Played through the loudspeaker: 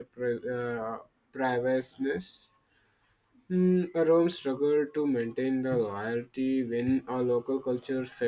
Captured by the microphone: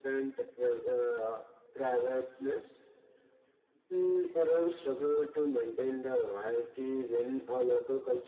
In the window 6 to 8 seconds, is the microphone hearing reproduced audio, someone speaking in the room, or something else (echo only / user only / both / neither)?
echo only